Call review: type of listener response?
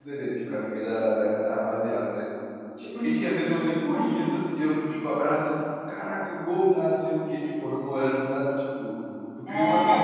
listening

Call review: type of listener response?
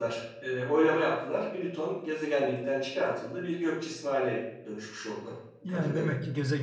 taking over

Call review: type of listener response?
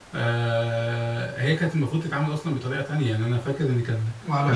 listening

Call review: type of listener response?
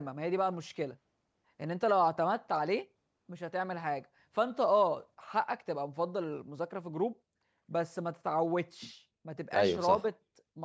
listening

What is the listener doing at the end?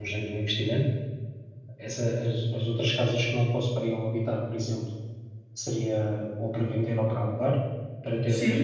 taking over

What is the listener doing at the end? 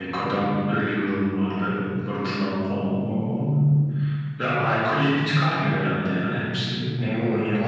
taking over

